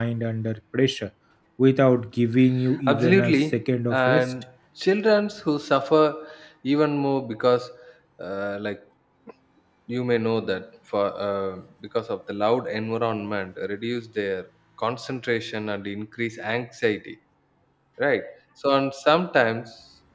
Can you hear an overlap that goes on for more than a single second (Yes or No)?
Yes